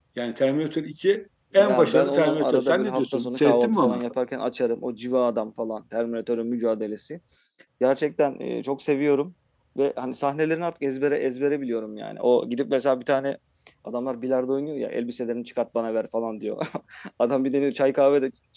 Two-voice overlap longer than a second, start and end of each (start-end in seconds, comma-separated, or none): 1.5-4.0